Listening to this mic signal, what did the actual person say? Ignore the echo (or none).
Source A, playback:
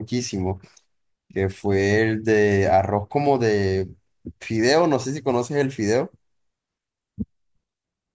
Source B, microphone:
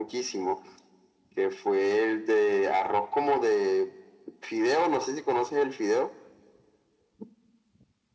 none